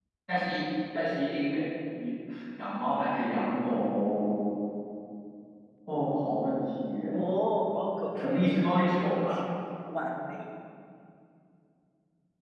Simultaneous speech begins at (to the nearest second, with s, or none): 8 s